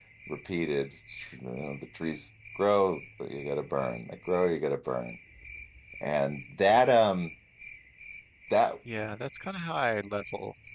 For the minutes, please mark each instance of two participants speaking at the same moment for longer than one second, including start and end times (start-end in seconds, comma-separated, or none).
none